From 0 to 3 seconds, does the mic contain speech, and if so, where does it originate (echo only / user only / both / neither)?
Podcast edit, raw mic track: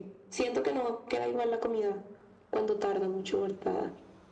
echo only